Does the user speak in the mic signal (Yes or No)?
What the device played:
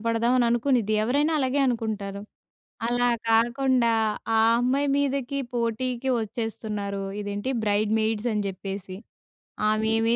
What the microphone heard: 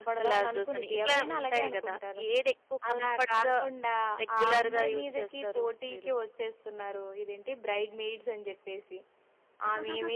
Yes